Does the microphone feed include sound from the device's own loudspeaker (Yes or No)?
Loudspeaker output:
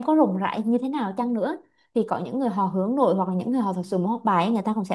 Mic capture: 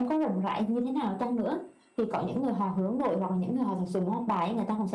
Yes